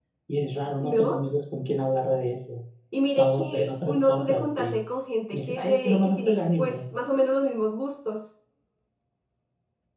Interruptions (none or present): present